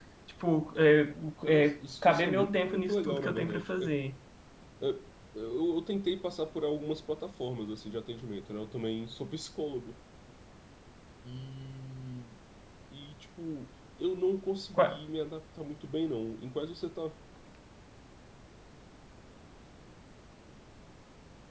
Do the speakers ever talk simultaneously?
Yes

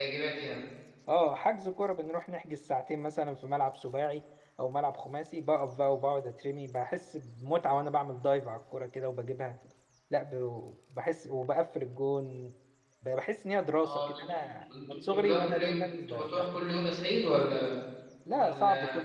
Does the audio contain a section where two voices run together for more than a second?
Yes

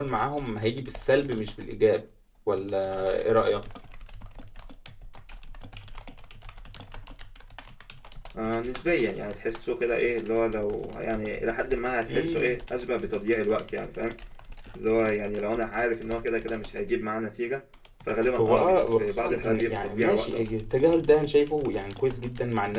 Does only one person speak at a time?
No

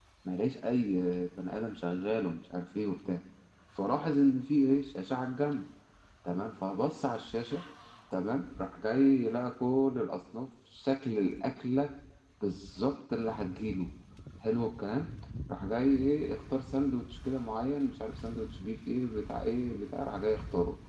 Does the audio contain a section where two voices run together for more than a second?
No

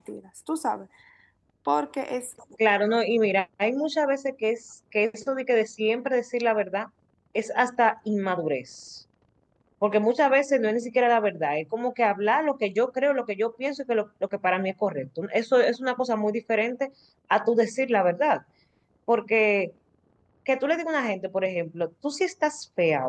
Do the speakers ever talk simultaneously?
No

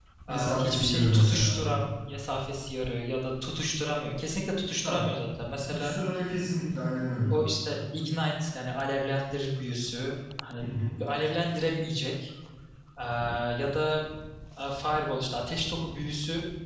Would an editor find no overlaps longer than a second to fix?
No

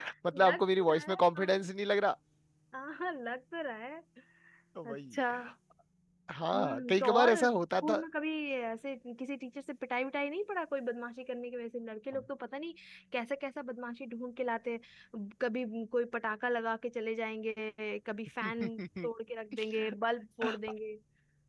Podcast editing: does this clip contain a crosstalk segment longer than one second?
Yes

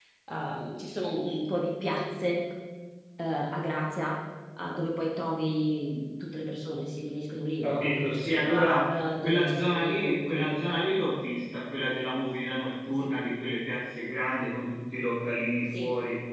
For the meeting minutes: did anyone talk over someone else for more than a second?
Yes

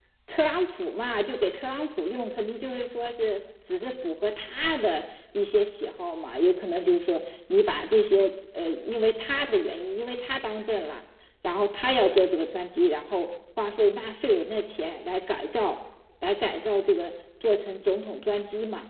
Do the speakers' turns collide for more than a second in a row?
No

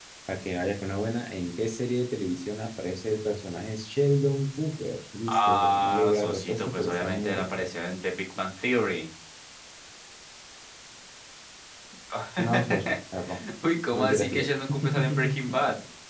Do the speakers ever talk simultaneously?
Yes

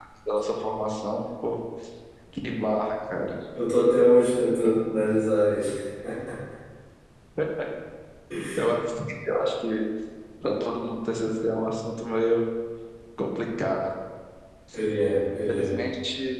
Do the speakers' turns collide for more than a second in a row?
No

